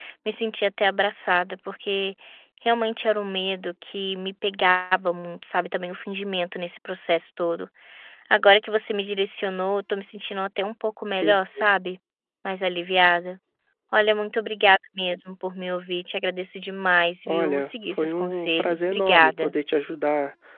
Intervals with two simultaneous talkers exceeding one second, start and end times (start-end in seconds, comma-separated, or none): 17.3-19.5